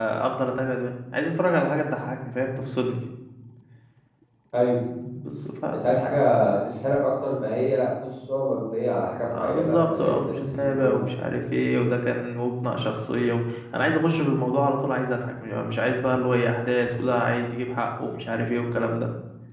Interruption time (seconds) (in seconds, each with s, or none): 9.3 s